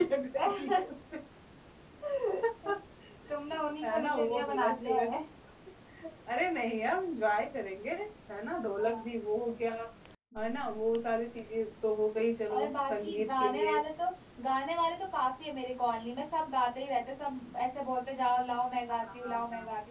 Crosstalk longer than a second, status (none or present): present